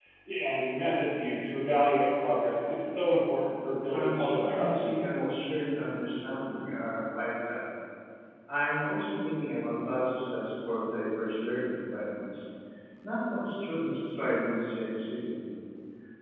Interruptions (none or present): present